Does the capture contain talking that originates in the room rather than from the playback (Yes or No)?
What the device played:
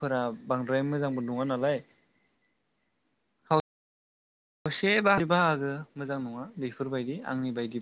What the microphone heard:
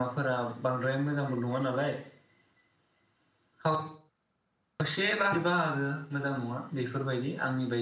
No